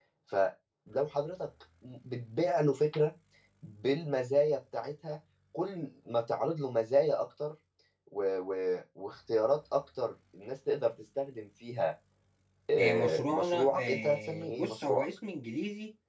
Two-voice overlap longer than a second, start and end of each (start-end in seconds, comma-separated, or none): 12.8-15.0